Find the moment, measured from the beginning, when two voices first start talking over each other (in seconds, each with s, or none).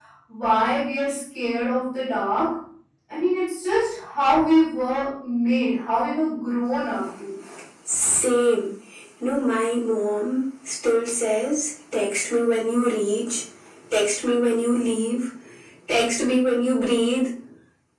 none